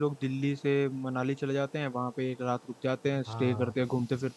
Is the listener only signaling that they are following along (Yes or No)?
Yes